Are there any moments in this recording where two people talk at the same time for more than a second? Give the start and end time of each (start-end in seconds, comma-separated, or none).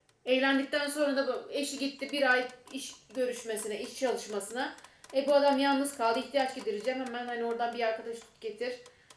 none